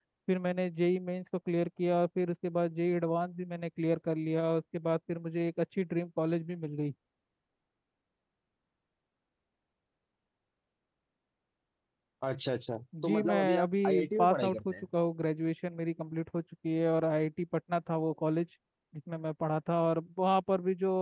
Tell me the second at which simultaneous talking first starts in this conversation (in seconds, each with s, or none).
13.0 s